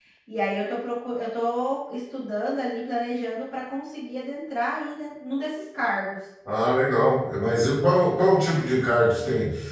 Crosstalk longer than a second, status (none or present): none